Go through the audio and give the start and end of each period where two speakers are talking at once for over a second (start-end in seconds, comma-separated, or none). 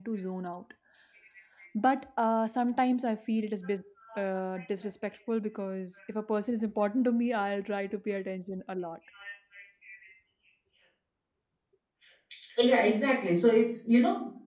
none